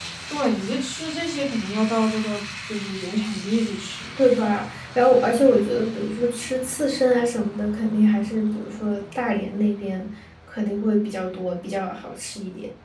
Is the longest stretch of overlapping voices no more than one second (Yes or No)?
Yes